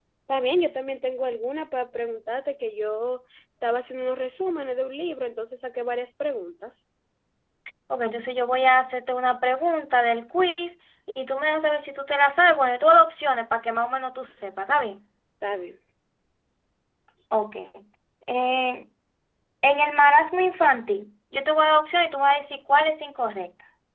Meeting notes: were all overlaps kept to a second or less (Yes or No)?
Yes